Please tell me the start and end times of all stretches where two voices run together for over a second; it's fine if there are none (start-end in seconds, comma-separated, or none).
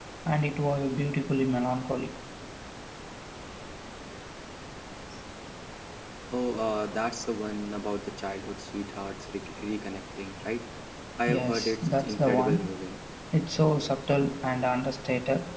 11.3-12.7